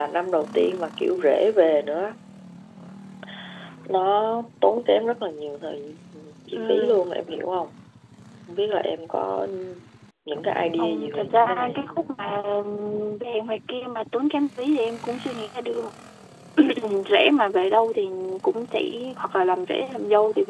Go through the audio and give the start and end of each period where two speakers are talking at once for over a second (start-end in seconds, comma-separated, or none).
10.8-12.1